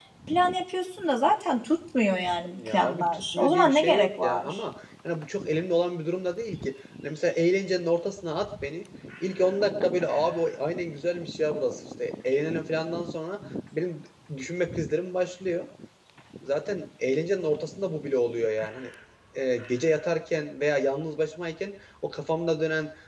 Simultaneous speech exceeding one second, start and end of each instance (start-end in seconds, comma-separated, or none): 2.6-4.6